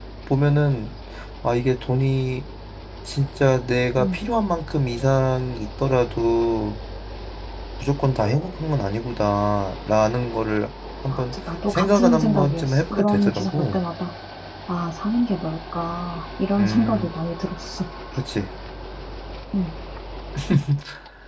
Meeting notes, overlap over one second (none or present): present